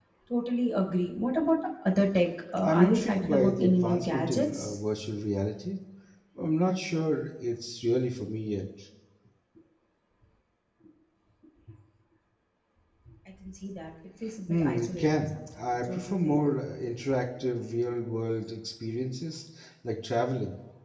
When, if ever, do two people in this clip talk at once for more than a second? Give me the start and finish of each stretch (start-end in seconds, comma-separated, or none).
2.6-4.8, 14.5-16.5